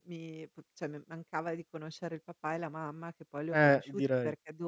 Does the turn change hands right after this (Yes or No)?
No